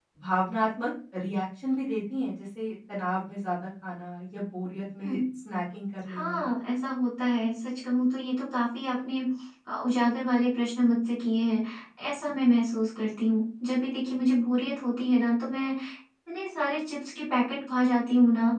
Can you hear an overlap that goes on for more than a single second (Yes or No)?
No